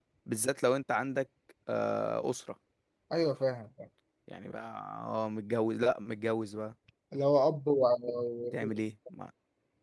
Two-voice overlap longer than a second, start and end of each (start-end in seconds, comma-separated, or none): none